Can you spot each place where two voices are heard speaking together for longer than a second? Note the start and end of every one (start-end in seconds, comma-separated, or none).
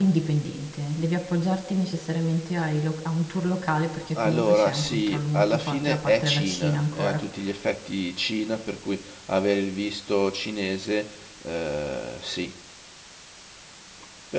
4.2-7.2